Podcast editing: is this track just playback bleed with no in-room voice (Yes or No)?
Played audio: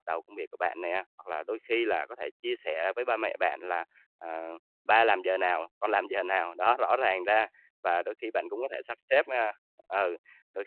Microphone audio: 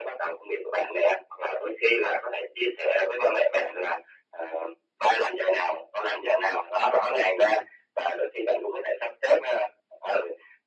Yes